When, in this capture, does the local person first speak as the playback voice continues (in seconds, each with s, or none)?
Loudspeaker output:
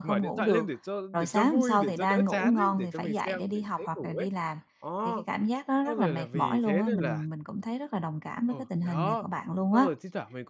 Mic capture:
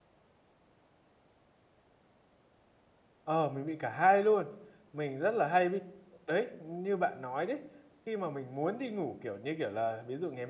3.2 s